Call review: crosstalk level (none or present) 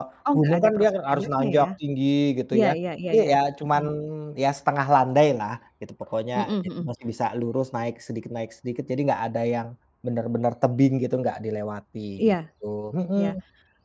present